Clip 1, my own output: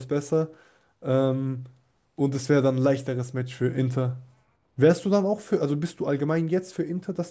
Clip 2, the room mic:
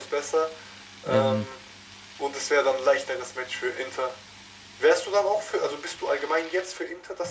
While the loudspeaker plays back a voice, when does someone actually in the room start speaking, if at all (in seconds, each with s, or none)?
1.1 s